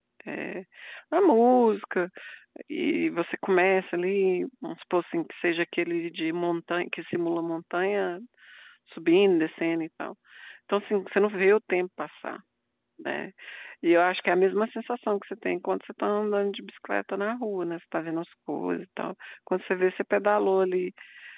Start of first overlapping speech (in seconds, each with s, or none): none